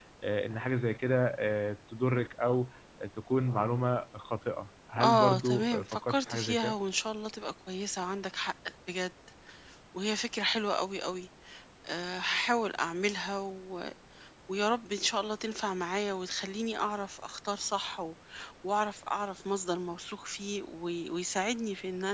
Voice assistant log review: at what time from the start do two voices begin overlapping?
5.0 s

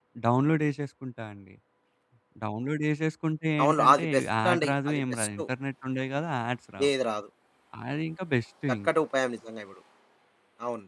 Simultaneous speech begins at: 3.6 s

